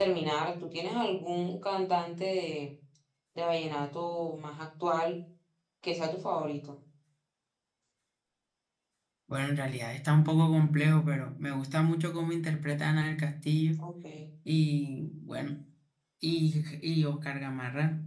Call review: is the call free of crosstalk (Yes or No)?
Yes